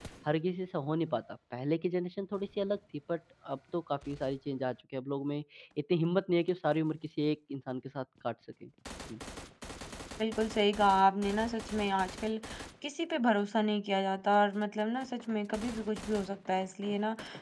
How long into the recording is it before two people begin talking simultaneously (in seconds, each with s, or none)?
none